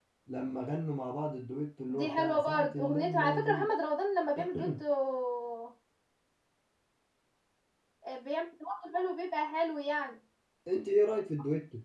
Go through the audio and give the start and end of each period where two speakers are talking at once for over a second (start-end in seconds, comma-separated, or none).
1.9-3.7